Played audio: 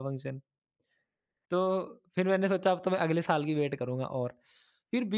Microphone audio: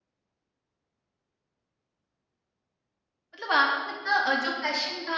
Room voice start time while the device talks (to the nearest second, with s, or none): 3 s